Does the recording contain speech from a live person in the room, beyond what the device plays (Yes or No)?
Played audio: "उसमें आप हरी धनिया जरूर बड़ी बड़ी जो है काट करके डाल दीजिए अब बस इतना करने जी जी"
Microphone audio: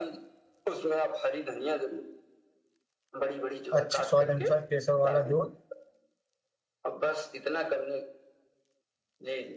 Yes